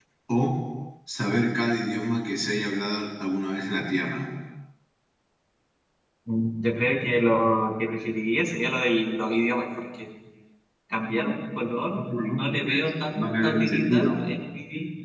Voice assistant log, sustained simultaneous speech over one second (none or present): present